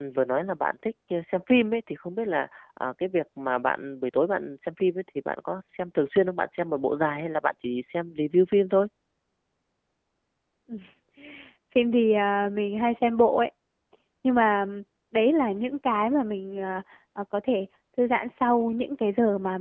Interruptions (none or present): none